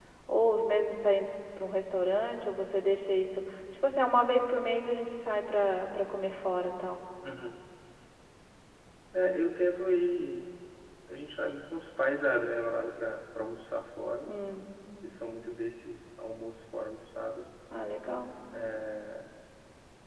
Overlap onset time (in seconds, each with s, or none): none